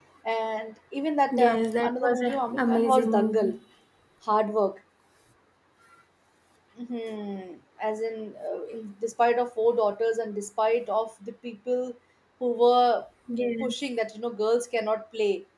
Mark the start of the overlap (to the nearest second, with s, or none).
1 s